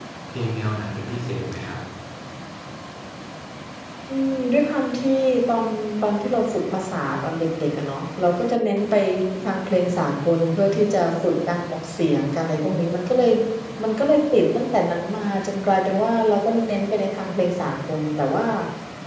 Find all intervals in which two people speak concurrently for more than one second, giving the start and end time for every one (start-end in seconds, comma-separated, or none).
none